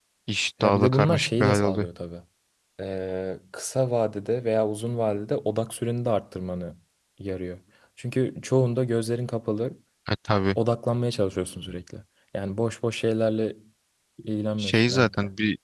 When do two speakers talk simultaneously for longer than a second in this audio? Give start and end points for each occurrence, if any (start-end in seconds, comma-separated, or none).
0.6-1.9